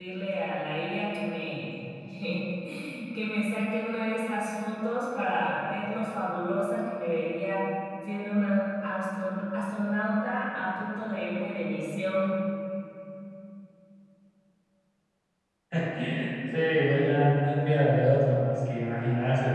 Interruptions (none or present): none